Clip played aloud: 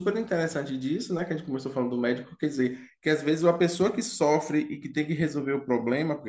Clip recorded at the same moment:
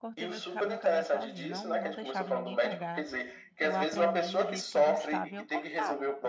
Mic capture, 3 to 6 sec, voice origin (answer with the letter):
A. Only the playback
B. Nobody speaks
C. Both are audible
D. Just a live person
C